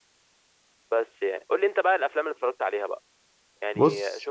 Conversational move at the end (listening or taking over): listening